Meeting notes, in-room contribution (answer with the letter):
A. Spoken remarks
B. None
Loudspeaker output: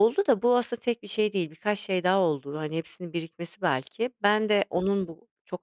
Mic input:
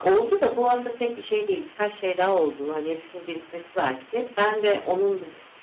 B